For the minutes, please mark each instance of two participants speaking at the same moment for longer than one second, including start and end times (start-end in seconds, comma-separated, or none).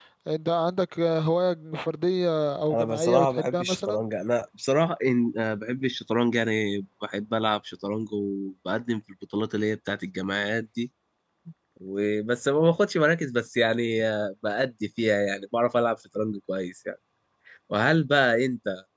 2.7-4.0